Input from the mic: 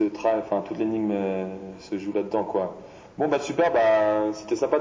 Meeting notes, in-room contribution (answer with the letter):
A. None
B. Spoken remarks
A